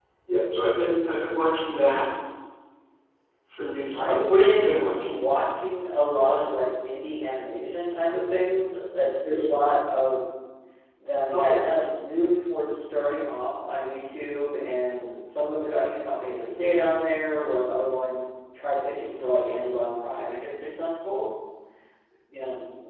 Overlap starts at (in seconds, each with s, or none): 3.9 s